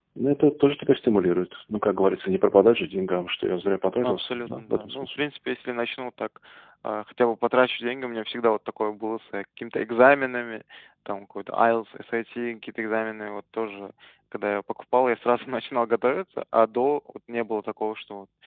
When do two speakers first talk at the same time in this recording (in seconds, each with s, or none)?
4.0 s